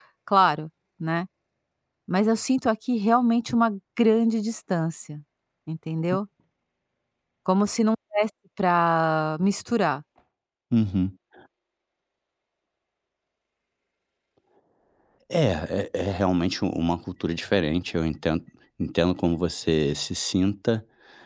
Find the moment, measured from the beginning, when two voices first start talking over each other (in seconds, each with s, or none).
none